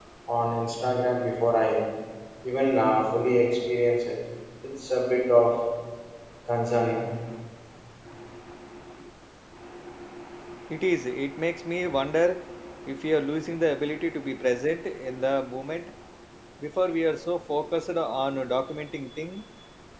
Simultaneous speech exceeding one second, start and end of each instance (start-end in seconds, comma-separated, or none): none